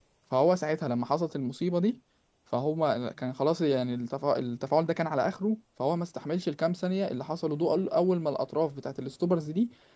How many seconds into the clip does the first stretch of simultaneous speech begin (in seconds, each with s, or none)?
none